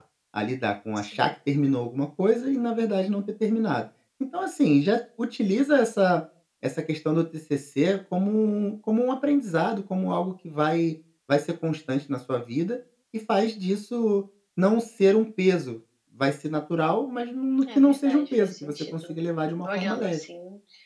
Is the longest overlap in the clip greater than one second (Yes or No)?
Yes